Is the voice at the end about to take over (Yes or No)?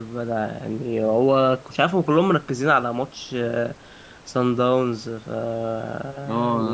Yes